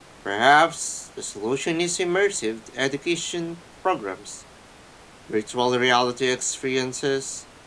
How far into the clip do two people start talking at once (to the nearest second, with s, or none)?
none